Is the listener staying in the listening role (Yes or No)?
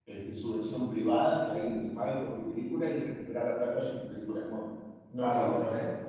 No